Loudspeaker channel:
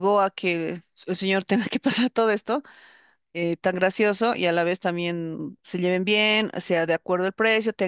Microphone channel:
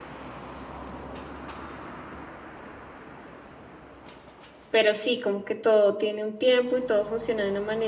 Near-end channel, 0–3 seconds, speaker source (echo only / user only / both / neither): neither